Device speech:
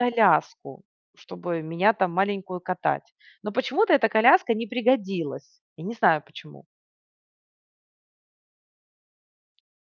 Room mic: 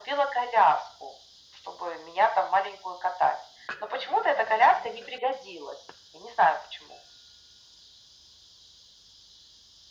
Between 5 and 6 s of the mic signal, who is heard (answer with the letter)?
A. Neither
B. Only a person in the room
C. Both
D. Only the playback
D